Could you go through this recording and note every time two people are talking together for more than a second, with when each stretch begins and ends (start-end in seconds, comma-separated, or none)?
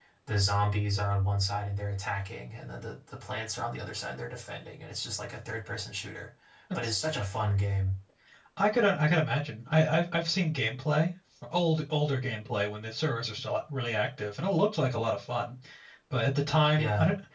none